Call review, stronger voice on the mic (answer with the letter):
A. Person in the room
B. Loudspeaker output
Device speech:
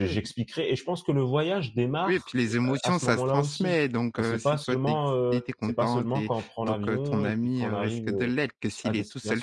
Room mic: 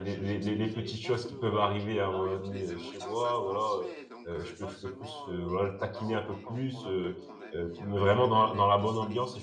A